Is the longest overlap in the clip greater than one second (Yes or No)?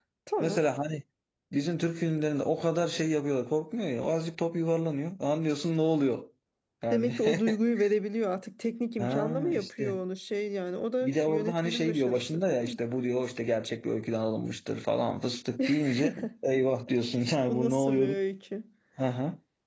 Yes